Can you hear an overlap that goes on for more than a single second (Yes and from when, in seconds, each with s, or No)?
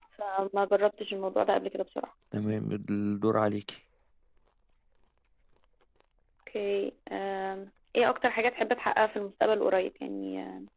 No